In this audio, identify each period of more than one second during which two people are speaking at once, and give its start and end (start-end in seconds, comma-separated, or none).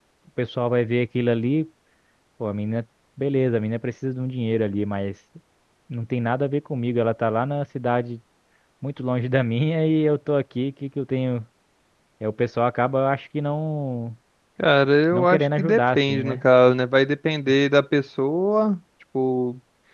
15.1-16.4